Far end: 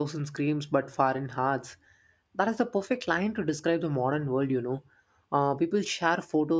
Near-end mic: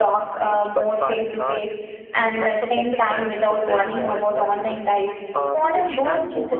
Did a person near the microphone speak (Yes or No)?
Yes